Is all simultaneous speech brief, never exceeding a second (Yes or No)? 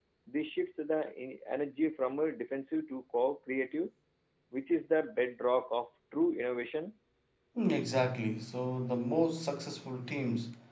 Yes